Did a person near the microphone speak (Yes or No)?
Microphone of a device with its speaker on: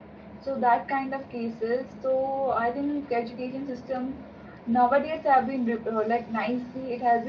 Yes